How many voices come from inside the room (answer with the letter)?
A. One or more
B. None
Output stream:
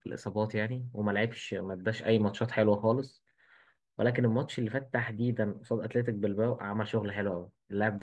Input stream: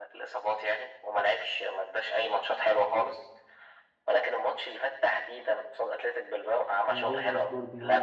A